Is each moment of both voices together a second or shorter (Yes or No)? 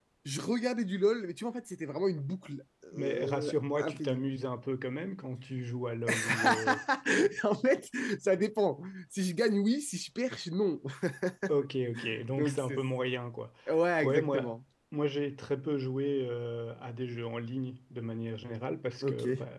No